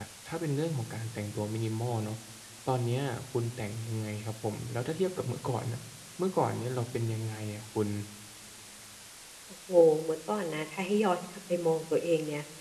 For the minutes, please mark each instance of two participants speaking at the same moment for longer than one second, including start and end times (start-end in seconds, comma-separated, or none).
none